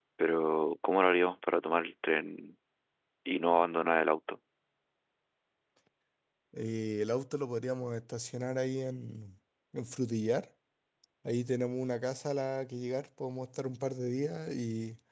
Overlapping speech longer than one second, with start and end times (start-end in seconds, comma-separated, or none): none